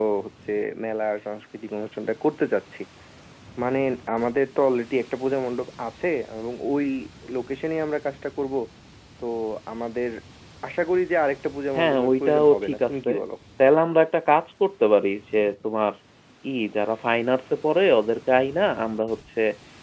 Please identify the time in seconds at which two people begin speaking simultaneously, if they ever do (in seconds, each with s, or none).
11.8 s